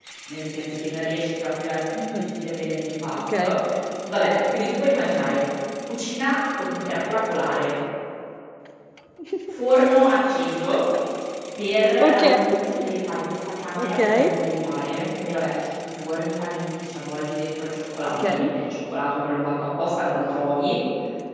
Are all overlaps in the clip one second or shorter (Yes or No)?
Yes